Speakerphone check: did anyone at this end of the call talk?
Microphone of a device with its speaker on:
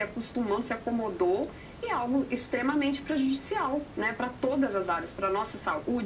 No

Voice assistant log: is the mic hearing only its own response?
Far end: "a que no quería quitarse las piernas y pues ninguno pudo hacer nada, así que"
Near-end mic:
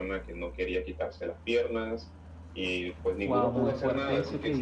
No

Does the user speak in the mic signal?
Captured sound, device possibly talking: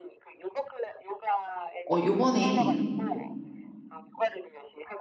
Yes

